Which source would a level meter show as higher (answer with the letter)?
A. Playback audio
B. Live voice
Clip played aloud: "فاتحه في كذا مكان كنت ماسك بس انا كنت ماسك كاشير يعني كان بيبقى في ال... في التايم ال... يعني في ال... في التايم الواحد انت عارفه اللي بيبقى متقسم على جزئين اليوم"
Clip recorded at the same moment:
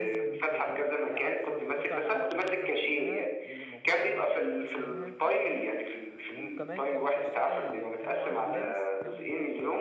A